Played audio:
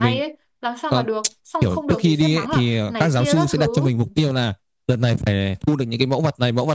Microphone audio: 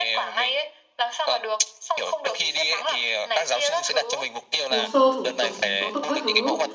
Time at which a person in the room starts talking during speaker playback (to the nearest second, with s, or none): 5 s